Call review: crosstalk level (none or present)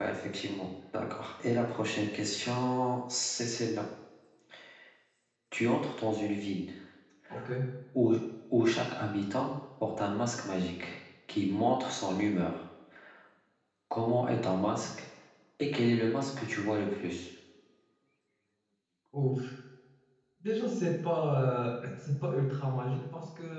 none